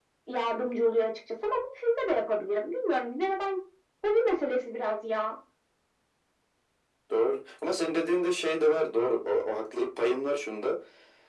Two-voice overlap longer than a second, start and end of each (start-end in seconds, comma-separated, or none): none